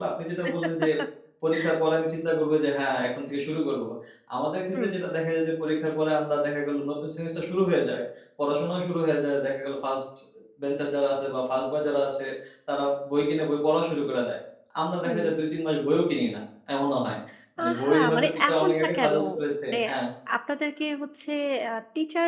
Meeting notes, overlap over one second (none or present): present